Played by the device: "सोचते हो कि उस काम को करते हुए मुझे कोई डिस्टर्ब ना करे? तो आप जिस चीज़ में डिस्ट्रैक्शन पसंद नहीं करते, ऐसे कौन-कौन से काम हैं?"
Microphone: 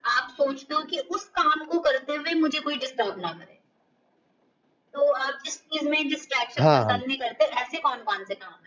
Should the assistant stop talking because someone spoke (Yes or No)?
Yes